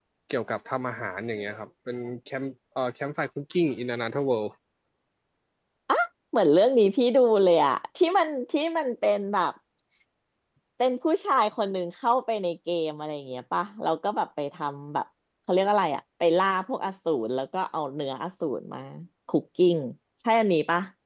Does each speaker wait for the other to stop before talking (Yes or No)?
Yes